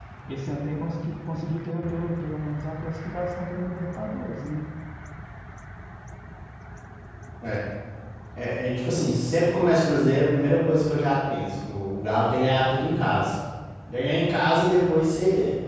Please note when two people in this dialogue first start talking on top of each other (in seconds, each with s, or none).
none